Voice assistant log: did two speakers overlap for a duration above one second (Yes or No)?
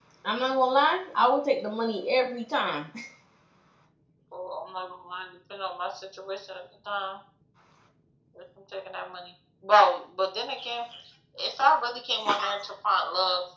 No